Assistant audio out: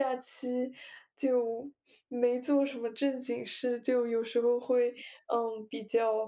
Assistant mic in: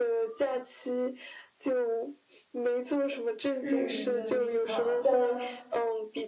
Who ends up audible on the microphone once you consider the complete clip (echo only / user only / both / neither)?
both